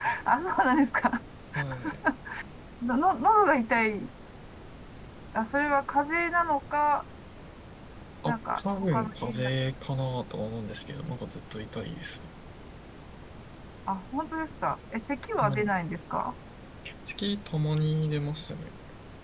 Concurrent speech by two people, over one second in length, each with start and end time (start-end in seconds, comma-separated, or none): 8.3-9.5